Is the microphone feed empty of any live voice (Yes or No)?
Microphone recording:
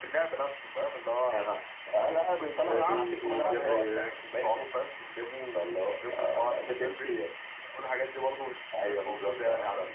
No